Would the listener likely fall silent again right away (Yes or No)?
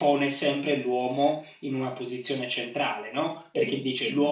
Yes